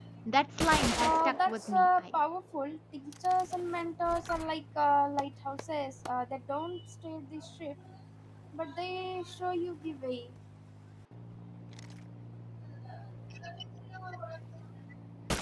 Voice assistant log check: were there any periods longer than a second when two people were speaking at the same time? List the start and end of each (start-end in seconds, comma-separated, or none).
1.0-2.2